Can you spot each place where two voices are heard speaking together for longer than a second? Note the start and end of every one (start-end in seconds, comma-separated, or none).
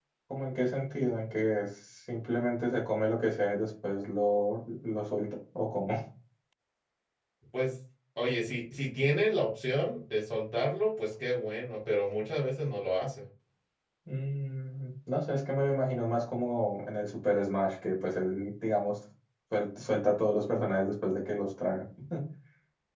none